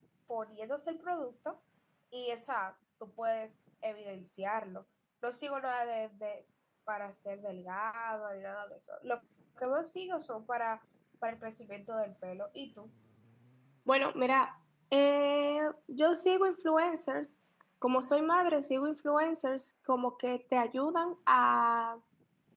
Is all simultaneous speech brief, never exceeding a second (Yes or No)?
Yes